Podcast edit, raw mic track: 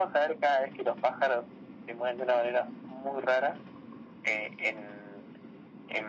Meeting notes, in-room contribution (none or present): none